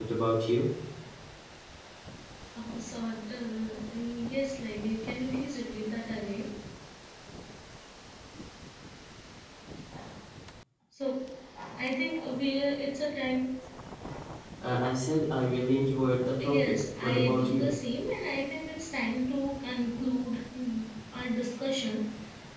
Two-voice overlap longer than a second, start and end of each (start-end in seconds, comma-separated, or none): 16.4-17.7